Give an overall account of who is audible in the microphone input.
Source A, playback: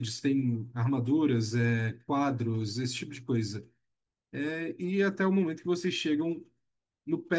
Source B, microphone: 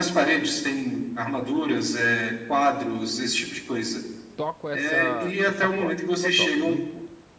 both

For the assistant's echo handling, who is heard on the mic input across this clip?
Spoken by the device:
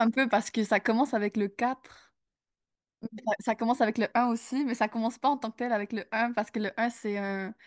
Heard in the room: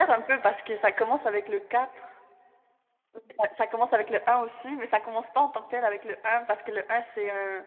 echo only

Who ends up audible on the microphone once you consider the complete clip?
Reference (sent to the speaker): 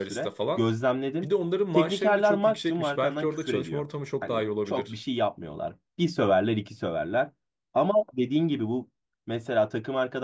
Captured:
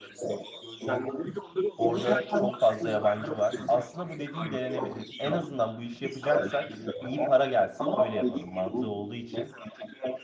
both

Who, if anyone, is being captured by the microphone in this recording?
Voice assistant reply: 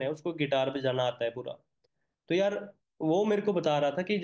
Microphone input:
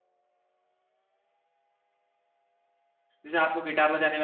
user only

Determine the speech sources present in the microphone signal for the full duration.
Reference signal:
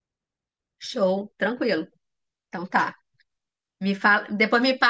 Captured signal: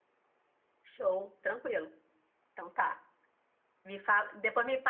echo only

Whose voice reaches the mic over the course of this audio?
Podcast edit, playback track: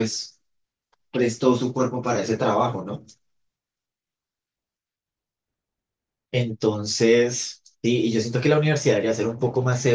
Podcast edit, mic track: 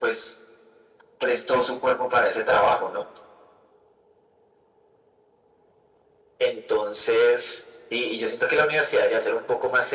echo only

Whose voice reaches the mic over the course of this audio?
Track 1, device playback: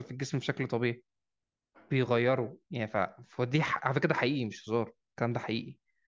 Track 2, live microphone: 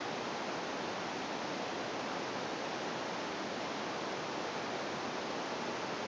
neither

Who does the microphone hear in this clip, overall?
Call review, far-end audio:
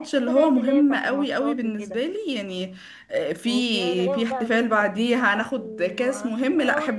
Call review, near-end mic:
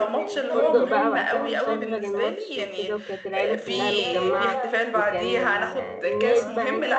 both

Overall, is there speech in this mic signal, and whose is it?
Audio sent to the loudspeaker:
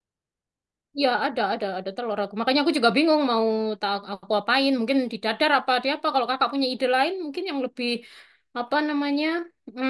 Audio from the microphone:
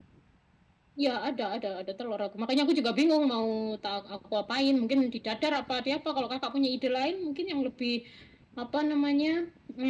echo only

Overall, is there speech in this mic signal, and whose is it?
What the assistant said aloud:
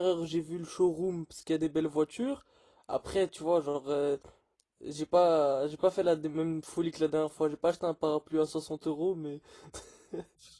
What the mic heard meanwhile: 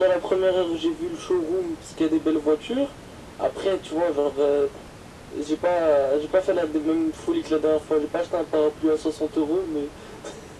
echo only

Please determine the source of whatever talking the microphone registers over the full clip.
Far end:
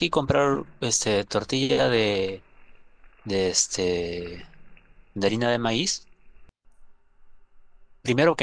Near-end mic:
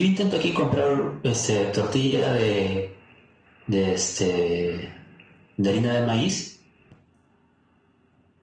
echo only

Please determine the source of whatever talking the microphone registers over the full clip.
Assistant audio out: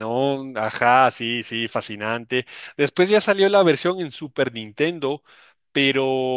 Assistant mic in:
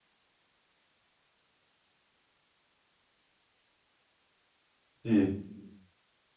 user only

